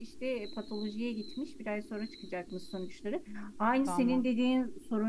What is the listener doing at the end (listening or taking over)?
listening